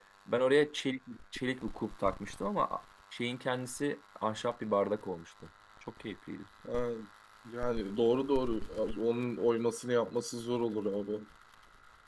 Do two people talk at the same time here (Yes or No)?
No